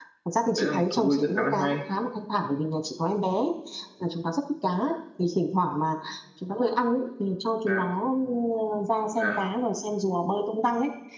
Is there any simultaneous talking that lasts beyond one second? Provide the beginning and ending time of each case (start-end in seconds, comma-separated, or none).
0.6-1.8